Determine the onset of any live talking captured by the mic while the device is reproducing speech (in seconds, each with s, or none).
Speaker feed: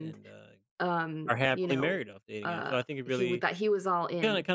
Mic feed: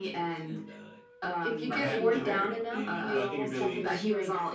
1.4 s